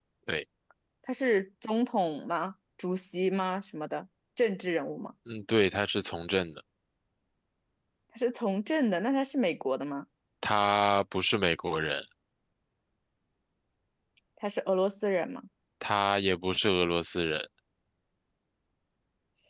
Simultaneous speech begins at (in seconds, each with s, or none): none